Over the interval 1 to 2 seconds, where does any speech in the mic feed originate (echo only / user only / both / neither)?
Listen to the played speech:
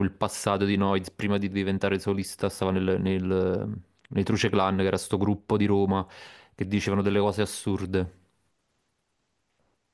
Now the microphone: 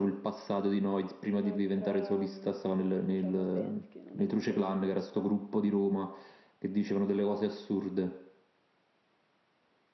both